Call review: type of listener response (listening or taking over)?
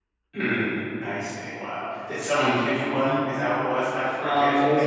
taking over